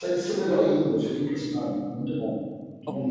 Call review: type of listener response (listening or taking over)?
taking over